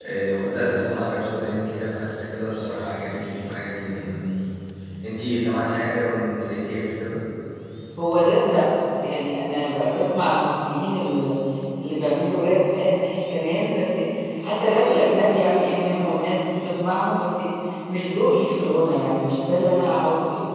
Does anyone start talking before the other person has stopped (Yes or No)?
No